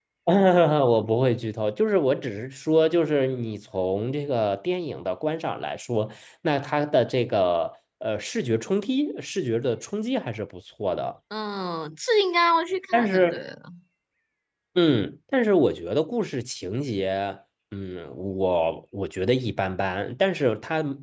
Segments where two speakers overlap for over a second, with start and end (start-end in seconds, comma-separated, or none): none